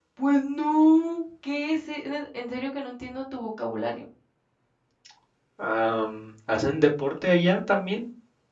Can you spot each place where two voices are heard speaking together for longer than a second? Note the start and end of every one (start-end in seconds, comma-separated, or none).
none